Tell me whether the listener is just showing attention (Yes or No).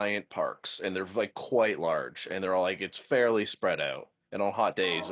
Yes